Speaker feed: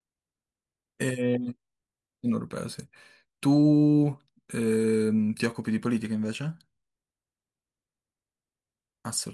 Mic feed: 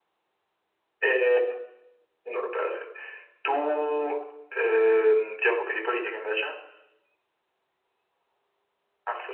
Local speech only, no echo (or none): none